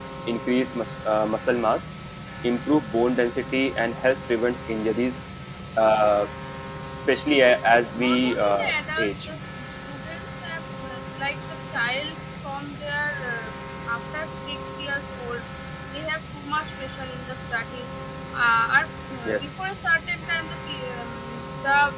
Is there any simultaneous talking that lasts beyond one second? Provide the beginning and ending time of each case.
8.0-9.2

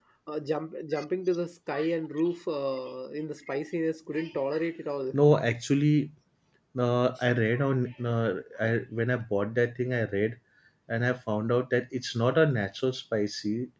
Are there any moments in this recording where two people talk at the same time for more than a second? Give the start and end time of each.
none

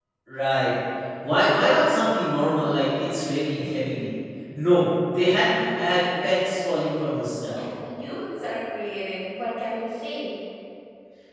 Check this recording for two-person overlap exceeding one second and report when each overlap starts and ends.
none

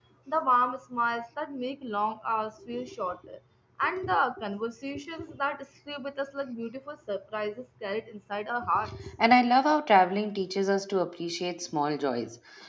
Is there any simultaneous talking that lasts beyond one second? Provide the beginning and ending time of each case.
none

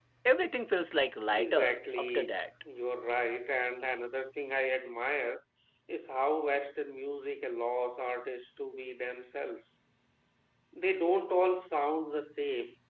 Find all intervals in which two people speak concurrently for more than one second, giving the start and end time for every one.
1.3-2.5

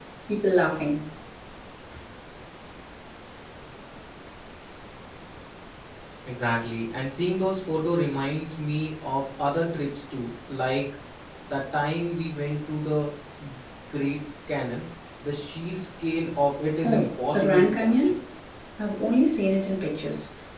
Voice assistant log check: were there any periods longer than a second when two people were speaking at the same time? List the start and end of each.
16.8-18.1

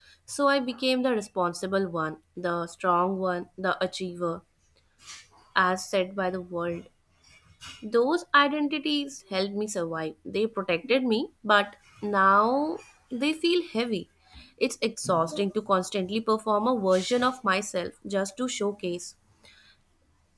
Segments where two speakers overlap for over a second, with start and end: none

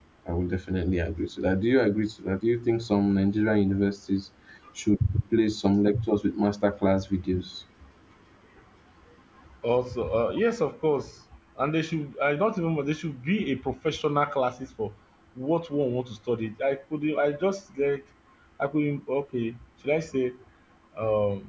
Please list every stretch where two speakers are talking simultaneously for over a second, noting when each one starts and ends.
none

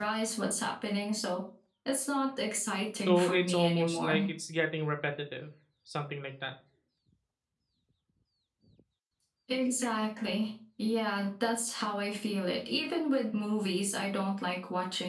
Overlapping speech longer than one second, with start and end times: 3.1-4.3

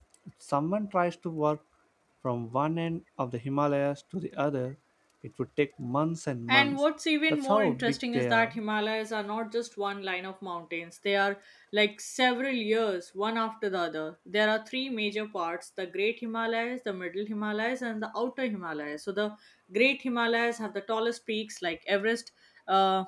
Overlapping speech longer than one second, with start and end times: 7.3-8.5

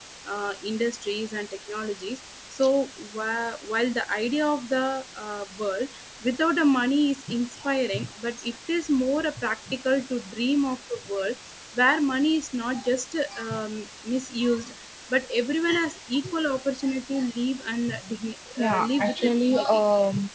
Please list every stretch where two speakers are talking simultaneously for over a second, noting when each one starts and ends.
18.6-19.8

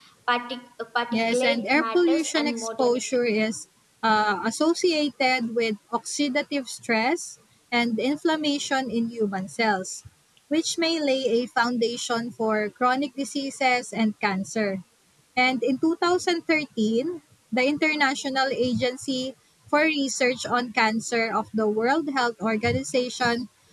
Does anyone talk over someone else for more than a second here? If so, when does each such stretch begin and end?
1.1-3.0

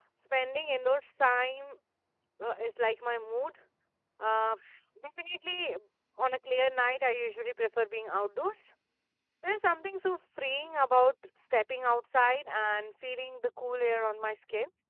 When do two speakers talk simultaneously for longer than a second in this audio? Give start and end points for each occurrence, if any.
none

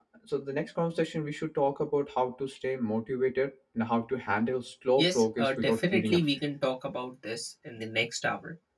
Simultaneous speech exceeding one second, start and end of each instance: 5.0-6.4

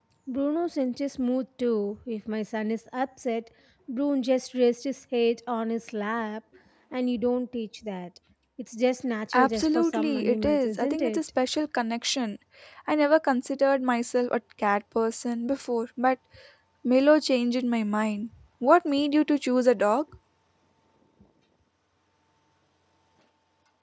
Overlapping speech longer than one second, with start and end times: 9.3-11.2

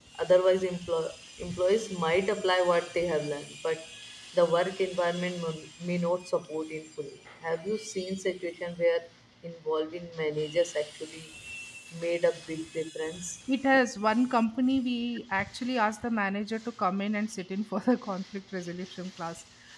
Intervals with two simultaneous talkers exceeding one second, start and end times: none

